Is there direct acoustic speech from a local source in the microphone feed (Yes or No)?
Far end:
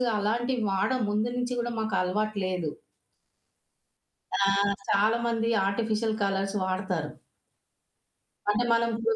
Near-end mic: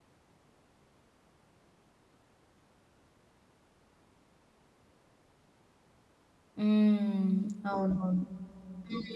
Yes